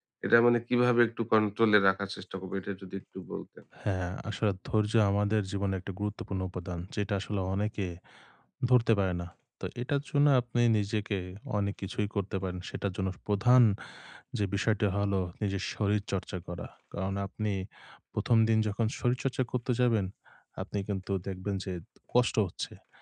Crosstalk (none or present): none